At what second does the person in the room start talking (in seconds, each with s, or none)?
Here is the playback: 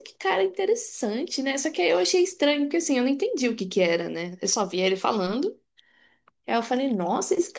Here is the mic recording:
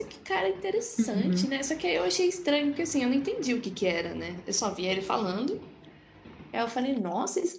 1.0 s